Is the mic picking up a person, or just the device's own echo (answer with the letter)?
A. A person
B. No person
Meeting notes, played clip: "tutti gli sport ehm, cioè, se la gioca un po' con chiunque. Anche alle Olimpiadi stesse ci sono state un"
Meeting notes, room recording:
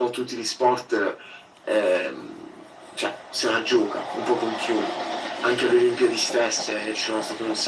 B